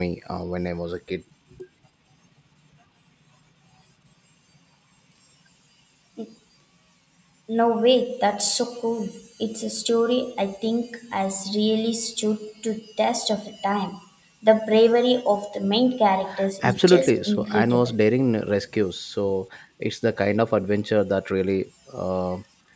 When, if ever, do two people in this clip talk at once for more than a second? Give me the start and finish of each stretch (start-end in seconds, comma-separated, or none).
16.6-17.9